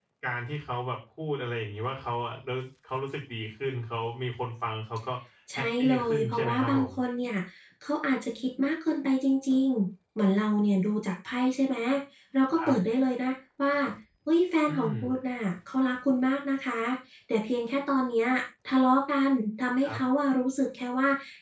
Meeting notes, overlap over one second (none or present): present